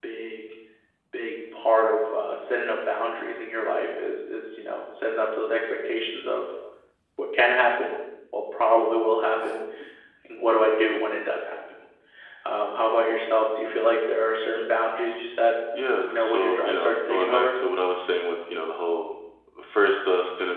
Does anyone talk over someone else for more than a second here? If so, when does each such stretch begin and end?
16.0-17.6

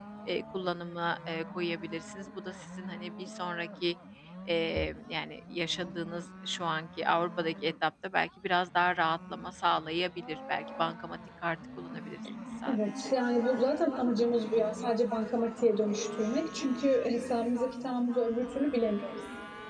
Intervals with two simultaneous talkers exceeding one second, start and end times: none

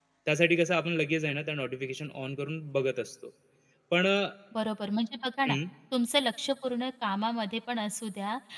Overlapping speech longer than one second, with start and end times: none

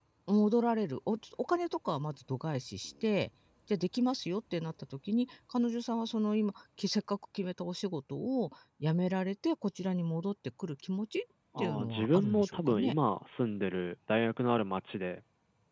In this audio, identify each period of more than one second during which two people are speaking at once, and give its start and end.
11.6-12.9

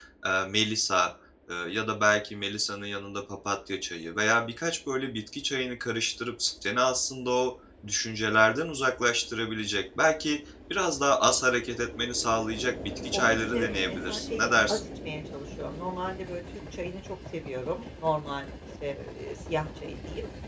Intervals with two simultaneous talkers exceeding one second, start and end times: 13.1-14.8

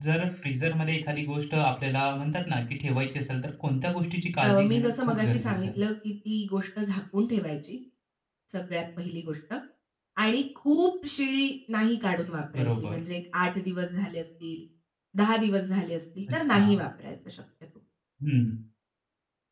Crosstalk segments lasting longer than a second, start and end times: 4.4-5.8

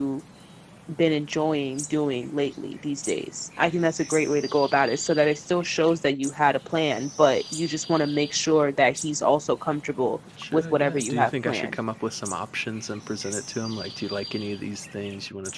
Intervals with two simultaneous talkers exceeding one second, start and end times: 10.5-11.8

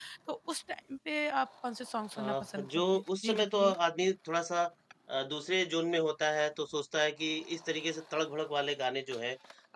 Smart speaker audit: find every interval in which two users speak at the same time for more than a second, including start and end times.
2.2-3.8

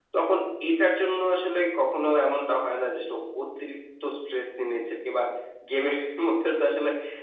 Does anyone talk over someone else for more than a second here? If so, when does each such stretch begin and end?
none

